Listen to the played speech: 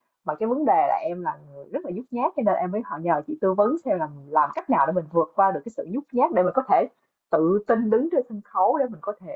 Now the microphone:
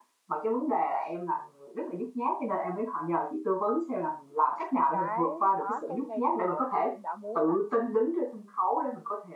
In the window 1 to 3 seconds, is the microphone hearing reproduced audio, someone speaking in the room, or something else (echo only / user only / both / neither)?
echo only